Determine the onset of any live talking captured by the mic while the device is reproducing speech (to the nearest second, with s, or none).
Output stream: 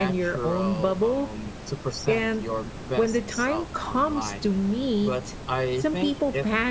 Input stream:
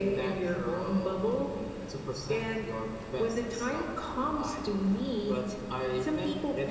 none